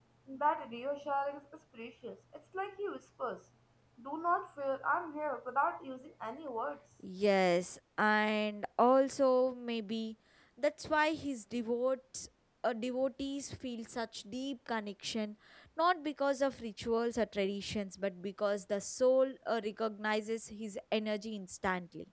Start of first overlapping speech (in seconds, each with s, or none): none